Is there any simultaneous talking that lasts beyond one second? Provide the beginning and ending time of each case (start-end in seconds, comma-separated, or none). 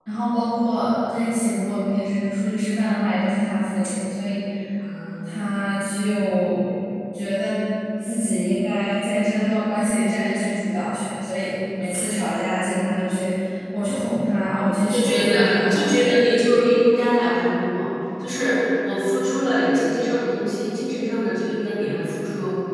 14.9-16.2